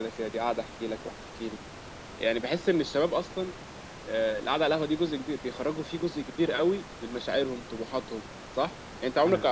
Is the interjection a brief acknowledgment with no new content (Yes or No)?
Yes